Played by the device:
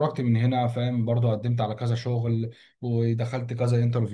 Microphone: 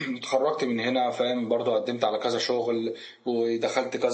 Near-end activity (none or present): none